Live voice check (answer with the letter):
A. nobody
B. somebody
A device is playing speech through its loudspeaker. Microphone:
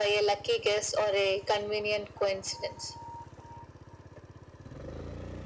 A